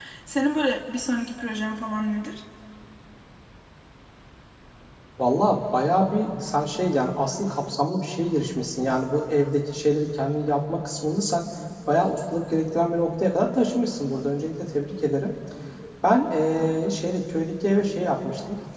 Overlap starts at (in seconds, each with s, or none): none